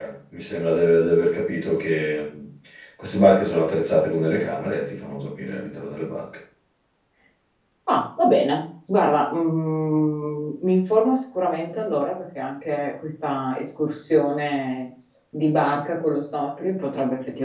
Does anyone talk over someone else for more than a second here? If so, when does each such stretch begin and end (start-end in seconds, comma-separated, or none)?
none